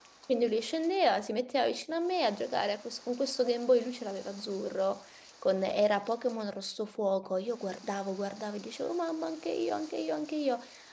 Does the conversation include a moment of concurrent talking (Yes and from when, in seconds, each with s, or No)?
No